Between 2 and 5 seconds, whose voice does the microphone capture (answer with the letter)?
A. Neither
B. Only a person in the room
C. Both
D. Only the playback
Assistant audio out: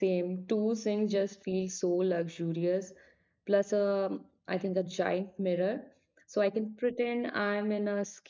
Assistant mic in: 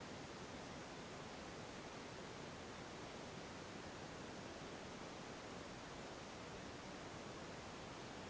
A